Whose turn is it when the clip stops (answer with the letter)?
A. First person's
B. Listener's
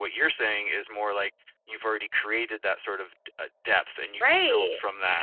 B